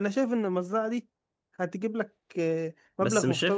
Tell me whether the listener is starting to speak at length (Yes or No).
Yes